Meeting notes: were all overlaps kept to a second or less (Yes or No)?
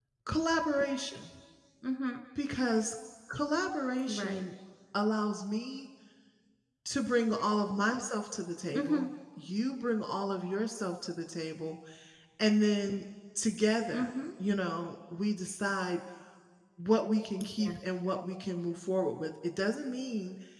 Yes